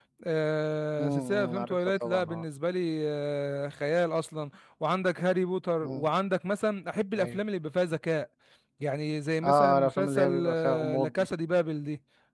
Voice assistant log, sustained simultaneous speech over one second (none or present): present